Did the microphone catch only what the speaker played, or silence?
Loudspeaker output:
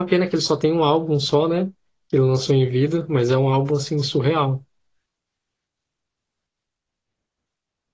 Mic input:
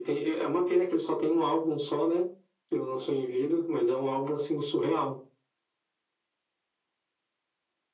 Yes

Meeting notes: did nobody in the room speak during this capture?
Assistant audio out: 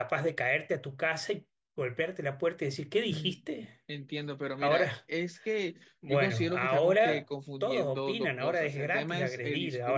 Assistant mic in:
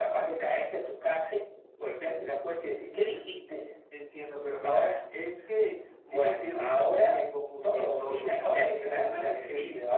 No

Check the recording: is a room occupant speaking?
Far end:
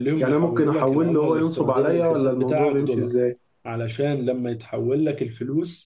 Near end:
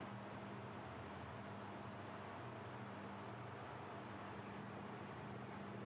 No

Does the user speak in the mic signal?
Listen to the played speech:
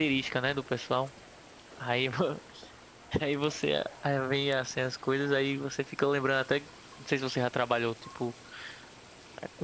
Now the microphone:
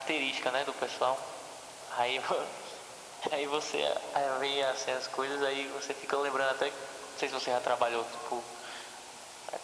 No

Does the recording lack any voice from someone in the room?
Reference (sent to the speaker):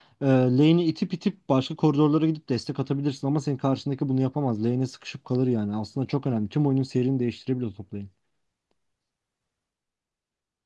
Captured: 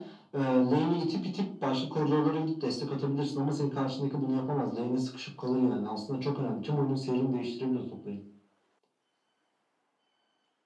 Yes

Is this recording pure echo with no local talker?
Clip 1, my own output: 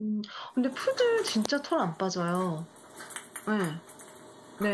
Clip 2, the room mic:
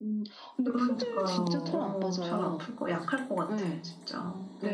No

